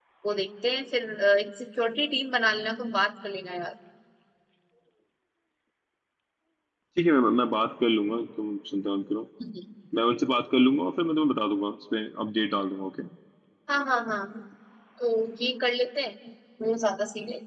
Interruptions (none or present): none